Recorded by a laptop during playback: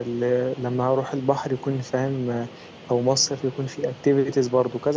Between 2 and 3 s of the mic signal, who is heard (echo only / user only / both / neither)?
user only